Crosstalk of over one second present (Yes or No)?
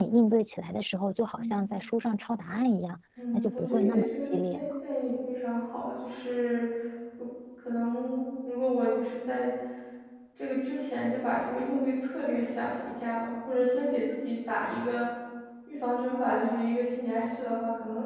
Yes